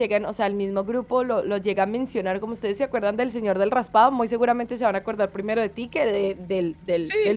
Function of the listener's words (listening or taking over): taking over